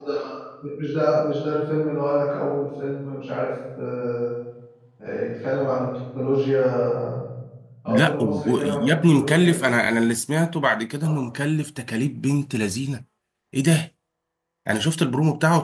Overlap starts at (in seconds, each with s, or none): 7.9 s